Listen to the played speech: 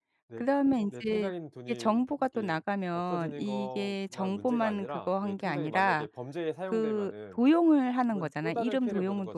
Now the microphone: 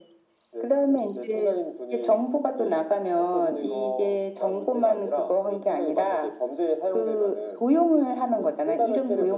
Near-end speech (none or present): none